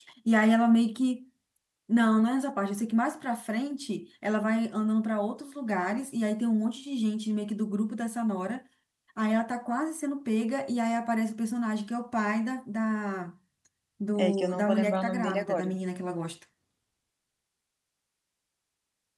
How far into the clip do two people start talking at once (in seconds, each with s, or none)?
14.2 s